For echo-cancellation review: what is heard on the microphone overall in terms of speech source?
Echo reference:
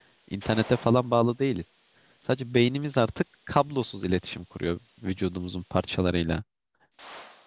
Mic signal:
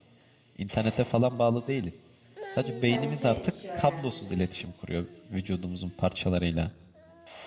both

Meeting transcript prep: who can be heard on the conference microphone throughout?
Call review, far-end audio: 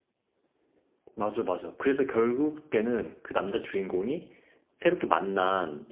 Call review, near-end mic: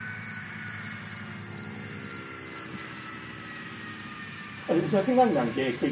user only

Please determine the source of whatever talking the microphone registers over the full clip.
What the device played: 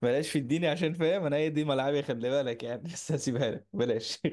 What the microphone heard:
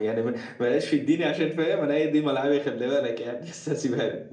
echo only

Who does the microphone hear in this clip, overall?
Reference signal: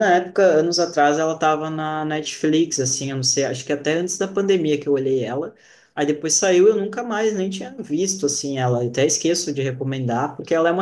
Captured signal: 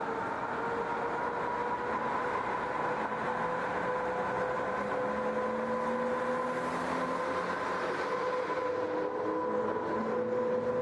neither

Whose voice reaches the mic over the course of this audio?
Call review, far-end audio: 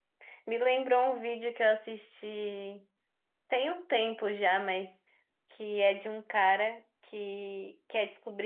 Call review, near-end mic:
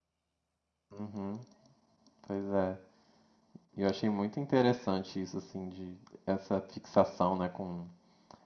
user only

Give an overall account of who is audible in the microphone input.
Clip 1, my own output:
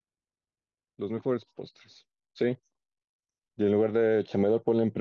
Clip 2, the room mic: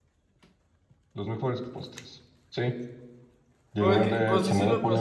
both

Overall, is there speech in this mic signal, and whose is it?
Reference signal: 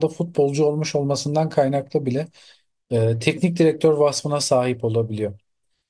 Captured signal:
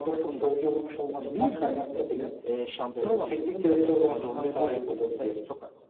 both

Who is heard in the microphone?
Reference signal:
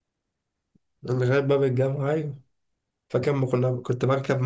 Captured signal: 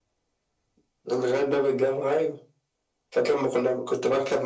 echo only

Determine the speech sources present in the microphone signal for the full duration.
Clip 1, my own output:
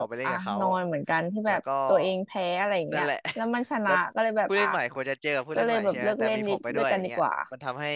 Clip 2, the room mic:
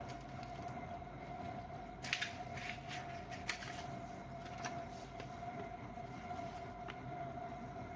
neither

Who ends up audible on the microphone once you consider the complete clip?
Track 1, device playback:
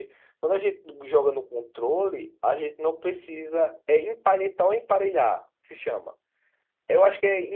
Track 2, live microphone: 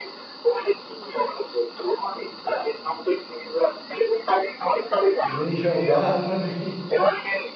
both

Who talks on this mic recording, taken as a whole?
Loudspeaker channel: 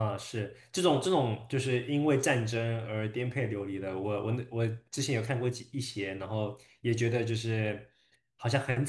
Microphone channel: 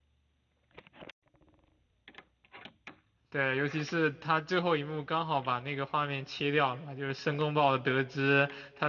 user only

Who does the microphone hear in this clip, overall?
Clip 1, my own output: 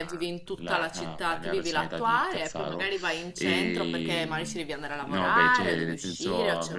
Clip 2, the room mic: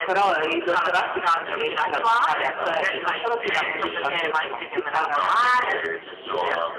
both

